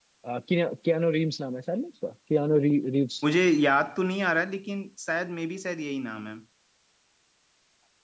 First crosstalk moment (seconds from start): none

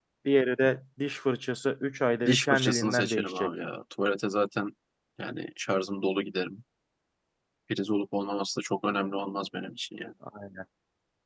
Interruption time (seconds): 2.2 s

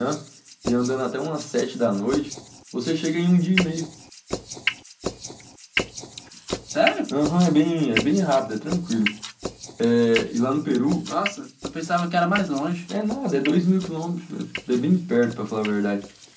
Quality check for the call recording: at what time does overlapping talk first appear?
none

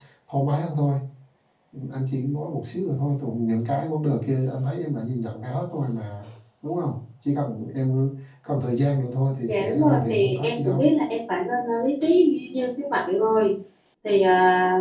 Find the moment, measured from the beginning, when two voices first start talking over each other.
9.5 s

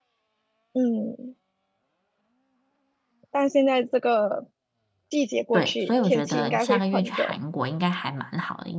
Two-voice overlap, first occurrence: 5.5 s

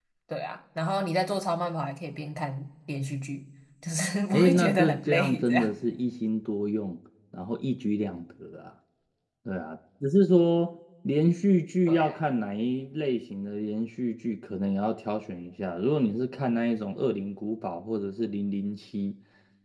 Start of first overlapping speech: 4.3 s

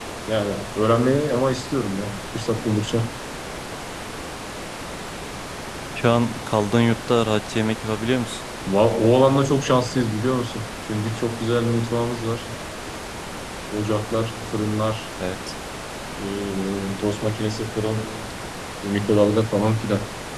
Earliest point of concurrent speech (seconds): none

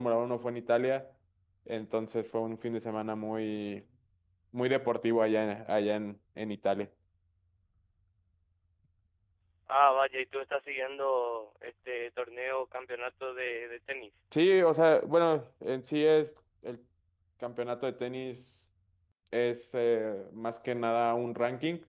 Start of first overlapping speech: none

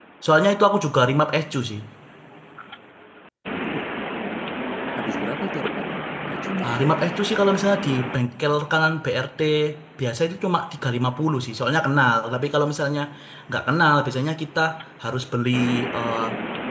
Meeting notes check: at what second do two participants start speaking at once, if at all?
none

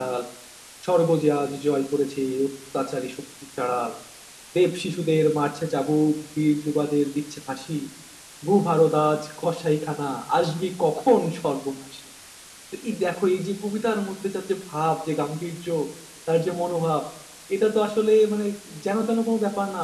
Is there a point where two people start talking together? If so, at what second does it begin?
none

